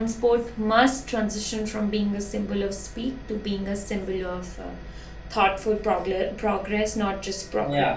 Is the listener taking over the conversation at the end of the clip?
Yes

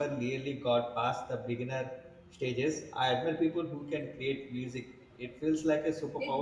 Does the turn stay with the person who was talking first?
No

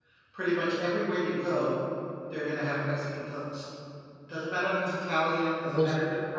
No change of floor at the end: Yes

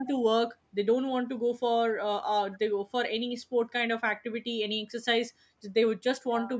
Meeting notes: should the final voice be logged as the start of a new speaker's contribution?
No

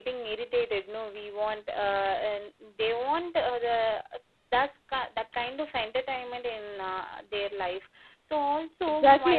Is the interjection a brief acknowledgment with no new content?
No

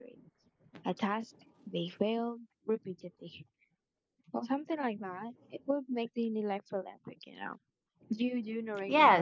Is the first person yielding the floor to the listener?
Yes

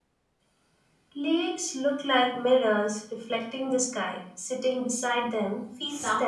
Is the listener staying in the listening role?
No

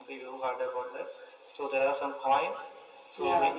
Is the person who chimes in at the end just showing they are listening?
Yes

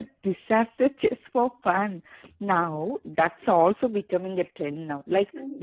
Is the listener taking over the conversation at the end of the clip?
No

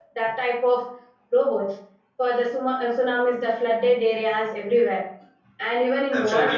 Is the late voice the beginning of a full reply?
Yes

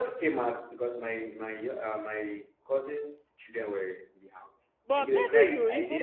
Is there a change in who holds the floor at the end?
Yes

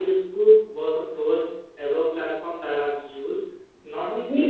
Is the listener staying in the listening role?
Yes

